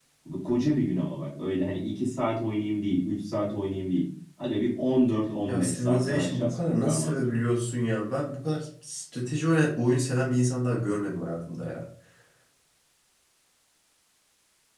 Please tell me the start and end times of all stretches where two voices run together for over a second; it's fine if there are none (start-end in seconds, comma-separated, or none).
5.5-7.3